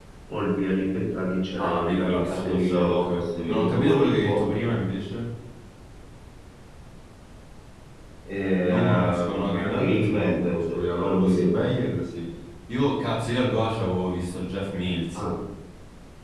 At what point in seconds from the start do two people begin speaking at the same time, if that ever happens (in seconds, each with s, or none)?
1.6 s